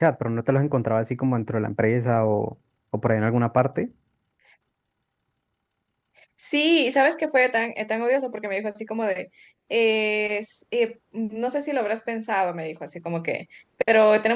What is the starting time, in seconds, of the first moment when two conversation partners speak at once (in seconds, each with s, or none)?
none